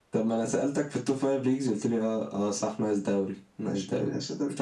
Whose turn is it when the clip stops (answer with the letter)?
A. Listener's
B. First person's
A